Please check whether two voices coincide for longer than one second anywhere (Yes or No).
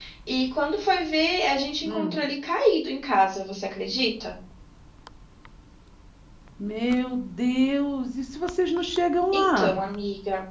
No